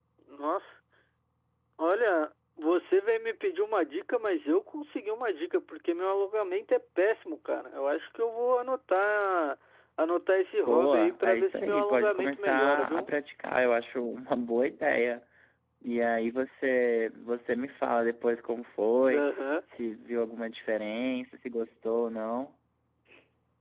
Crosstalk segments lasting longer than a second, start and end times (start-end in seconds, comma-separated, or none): 10.7-13.1